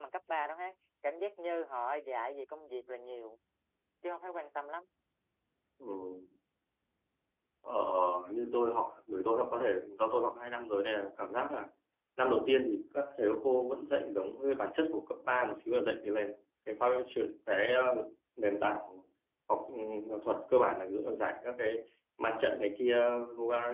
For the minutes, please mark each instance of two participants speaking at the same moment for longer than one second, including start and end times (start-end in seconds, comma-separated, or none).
none